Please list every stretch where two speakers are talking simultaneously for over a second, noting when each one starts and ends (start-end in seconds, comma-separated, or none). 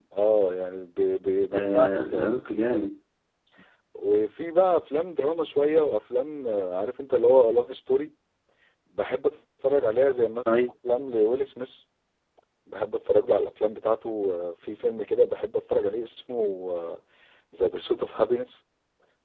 1.5-2.9